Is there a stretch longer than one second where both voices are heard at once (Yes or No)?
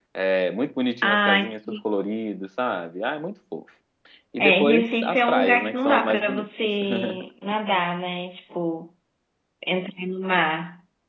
Yes